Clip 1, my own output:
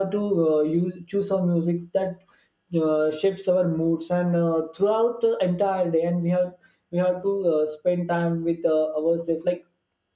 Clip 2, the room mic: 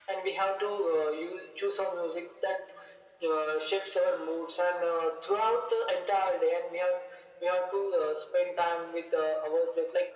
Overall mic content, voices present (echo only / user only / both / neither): echo only